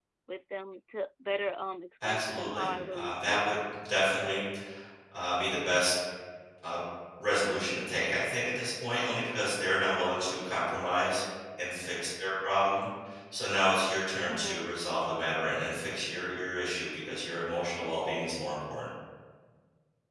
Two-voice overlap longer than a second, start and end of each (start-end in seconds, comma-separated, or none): 2.0-3.5